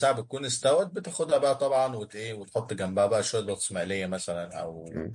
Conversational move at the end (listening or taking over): taking over